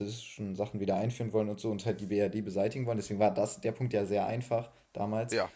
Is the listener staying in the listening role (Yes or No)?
Yes